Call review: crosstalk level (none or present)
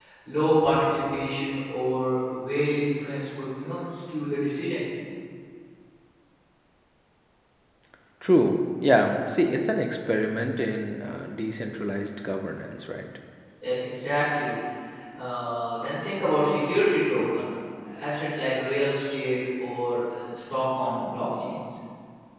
none